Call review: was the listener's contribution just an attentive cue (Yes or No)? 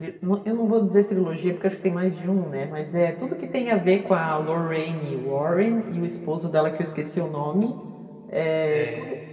Yes